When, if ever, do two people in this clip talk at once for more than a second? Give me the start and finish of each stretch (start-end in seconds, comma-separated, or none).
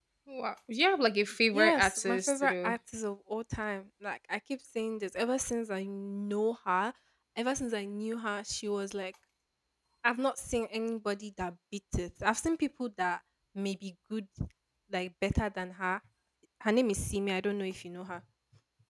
1.5-2.7